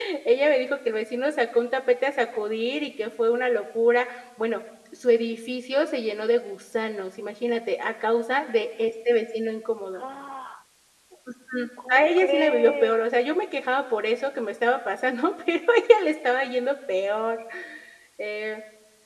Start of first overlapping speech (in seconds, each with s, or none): 11.9 s